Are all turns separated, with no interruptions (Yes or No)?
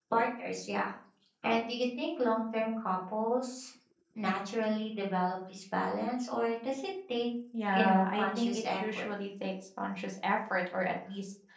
No